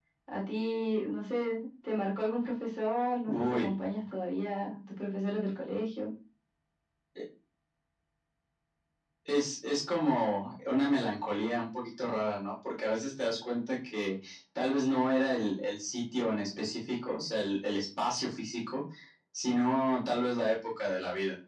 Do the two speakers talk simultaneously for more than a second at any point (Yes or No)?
No